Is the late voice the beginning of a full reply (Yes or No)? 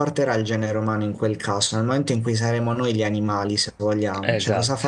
Yes